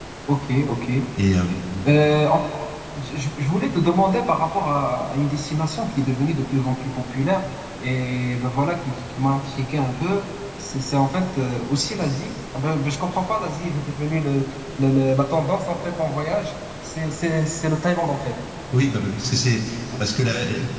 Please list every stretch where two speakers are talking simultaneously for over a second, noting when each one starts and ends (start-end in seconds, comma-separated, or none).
none